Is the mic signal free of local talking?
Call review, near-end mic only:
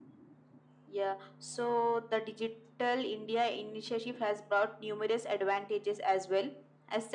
Yes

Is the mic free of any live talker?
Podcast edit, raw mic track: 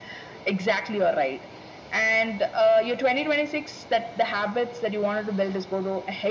Yes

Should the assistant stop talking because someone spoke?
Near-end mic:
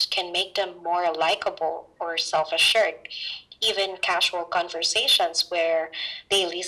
No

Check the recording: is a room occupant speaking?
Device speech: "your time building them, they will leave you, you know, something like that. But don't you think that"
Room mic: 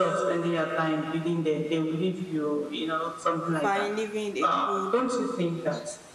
Yes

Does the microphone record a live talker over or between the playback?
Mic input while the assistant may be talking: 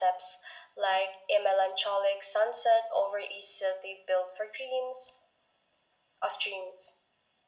No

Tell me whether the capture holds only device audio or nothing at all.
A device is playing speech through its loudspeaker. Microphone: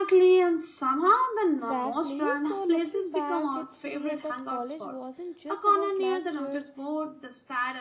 No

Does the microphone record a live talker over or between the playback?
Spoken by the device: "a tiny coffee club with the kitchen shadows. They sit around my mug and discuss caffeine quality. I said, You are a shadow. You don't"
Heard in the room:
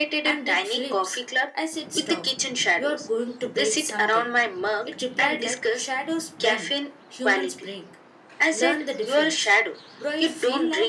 Yes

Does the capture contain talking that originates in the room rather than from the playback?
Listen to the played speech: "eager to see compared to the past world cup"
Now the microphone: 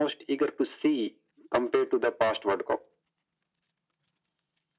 No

